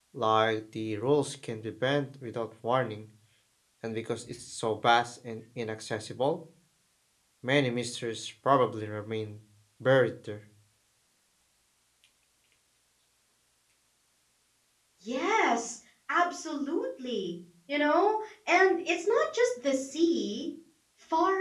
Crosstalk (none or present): none